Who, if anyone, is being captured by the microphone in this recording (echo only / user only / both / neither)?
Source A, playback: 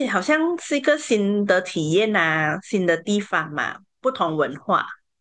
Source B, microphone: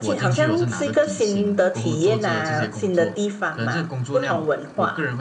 both